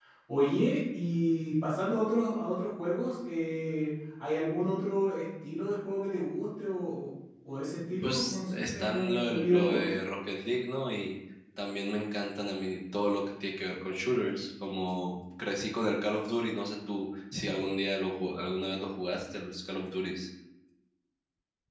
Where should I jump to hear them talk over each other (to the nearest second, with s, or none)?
8 s